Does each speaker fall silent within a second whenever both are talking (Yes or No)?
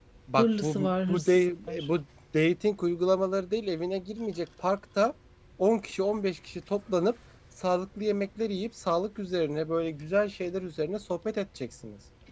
No